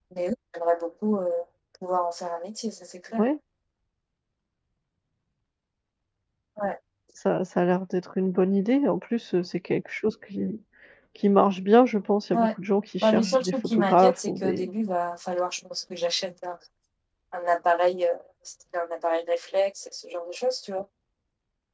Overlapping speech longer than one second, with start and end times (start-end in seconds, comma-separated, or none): 13.0-14.7